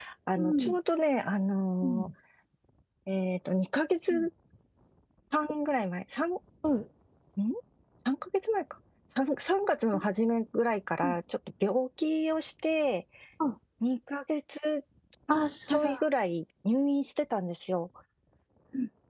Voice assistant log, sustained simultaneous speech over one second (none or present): none